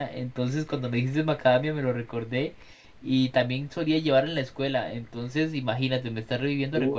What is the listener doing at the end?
taking over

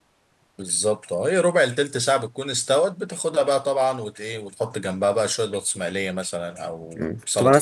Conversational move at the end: taking over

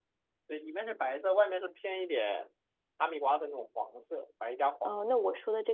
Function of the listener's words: taking over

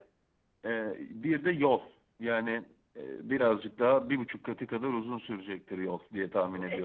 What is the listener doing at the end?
taking over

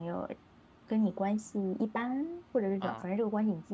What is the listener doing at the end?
listening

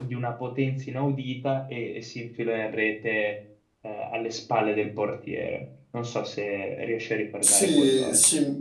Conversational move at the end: taking over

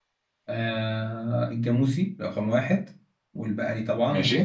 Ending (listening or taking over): listening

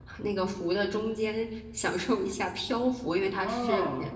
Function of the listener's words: taking over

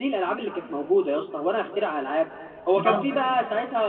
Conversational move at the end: listening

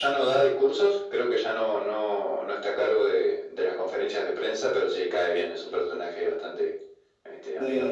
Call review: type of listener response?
taking over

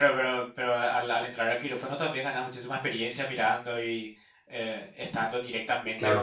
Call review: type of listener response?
taking over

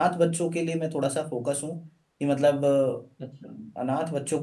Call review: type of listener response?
listening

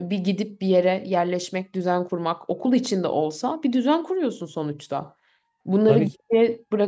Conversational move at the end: listening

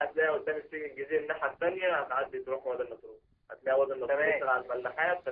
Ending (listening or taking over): listening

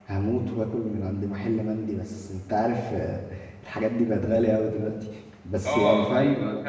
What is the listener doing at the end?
taking over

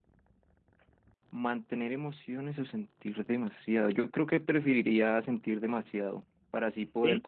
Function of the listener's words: listening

